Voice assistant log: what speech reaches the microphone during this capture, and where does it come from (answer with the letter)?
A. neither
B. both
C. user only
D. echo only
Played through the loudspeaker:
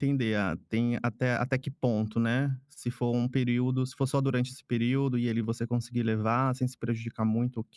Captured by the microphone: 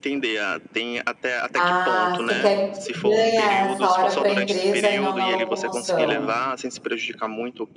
B